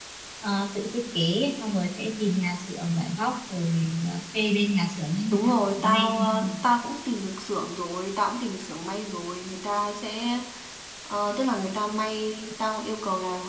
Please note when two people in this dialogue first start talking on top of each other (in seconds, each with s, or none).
5.3 s